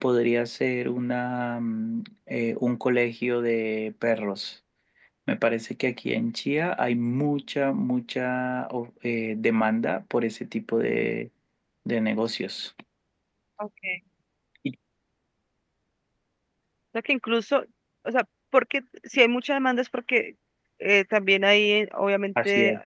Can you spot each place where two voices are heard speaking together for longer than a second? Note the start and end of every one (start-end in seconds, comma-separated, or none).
none